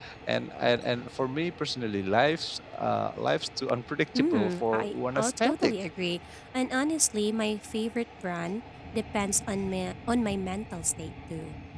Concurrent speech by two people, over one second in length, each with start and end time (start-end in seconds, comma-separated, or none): 4.2-5.7